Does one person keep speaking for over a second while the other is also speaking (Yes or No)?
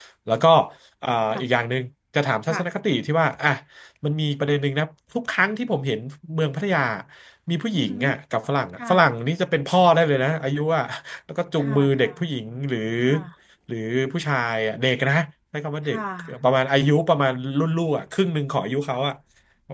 No